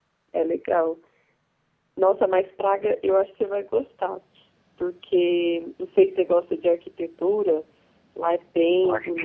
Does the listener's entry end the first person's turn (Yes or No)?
No